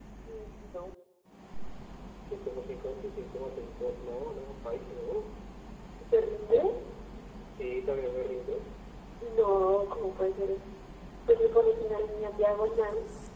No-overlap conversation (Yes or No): Yes